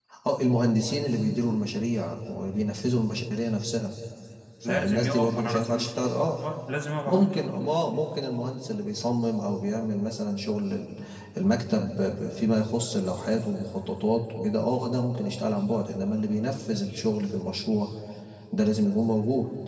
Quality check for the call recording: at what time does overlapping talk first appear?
4.6 s

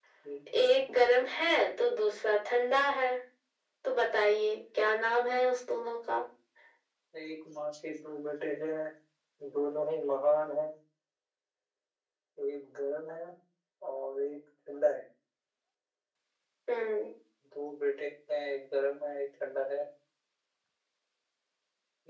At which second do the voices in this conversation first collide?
none

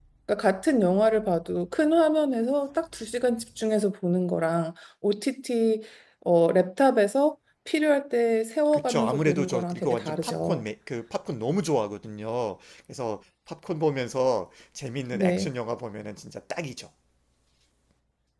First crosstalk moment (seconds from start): 8.7 s

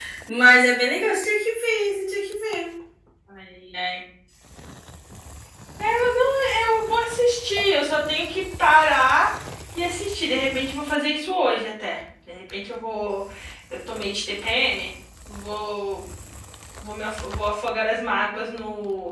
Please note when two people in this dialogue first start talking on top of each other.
none

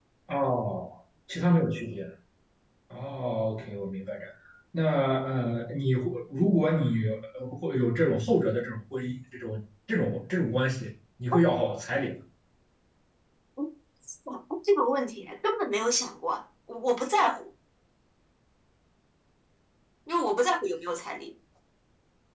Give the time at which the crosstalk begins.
none

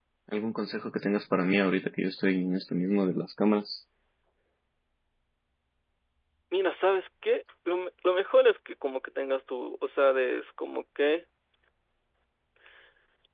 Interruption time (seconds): none

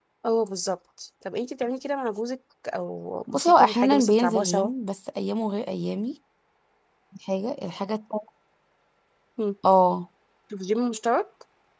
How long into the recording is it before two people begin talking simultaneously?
3.3 s

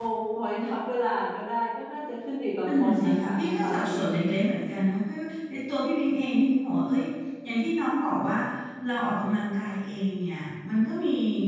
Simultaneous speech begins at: 2.7 s

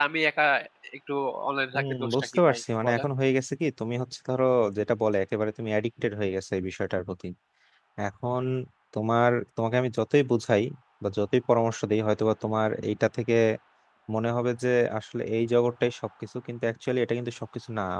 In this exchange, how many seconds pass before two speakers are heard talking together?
1.8 s

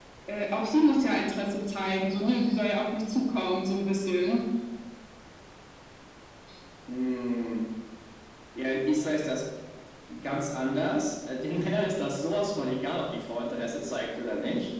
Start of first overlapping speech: none

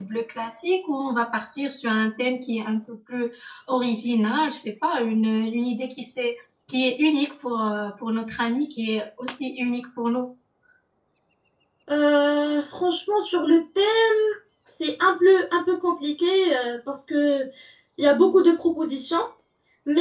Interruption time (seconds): none

